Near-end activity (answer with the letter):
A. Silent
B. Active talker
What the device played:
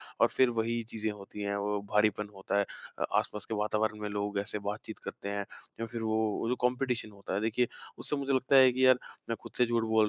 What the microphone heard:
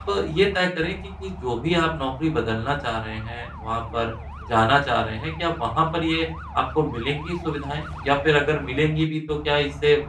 B